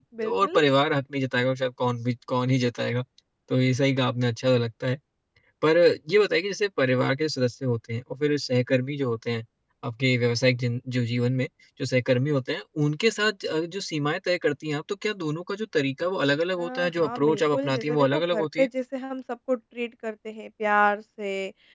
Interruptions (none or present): present